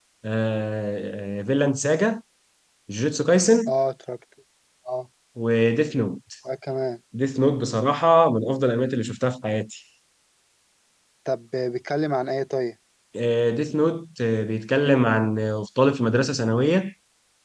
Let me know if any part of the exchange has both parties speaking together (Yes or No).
No